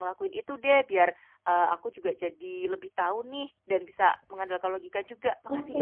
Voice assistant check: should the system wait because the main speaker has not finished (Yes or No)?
No